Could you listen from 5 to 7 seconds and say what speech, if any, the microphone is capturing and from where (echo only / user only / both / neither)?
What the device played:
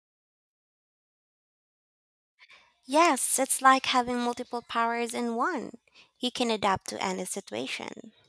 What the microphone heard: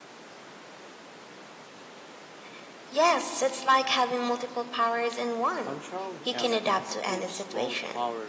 both